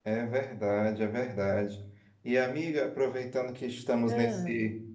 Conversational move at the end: listening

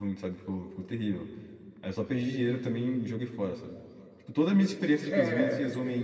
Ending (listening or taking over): listening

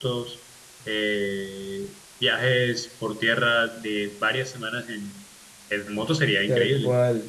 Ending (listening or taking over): taking over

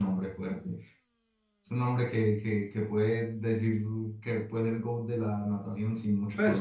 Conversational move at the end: taking over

